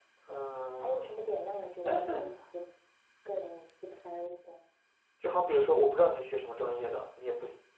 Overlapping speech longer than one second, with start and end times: none

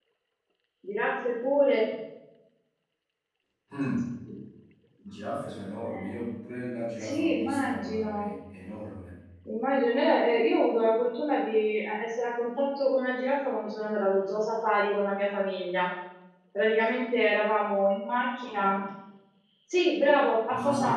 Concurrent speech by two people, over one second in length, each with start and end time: 7.0-8.3

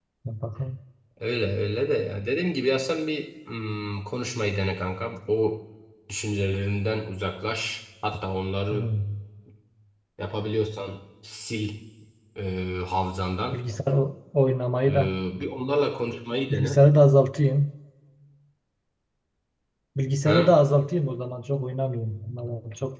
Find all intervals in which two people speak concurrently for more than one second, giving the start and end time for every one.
none

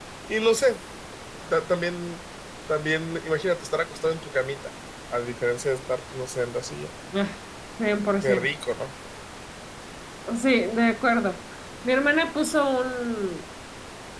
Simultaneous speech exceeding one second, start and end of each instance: none

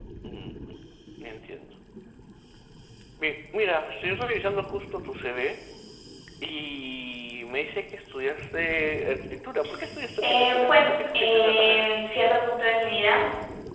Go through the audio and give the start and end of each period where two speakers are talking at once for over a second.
10.2-11.9

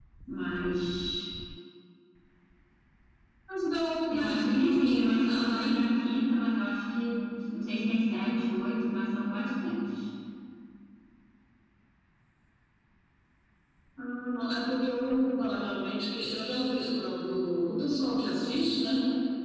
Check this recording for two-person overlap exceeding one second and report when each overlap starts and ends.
4.1-5.7

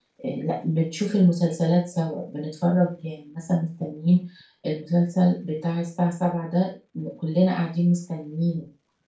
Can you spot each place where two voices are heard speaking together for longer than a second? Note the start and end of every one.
none

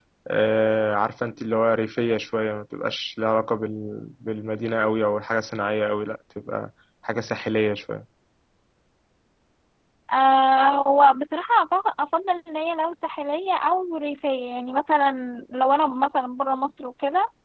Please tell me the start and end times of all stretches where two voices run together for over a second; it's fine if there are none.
none

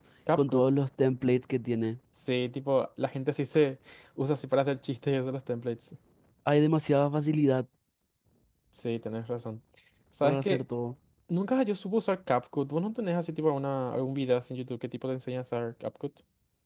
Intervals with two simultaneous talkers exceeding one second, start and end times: none

